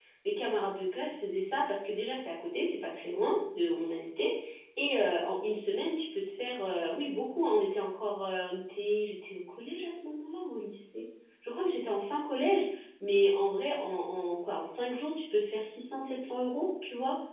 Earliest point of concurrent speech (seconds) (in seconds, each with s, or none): none